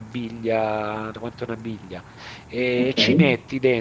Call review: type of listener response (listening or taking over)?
listening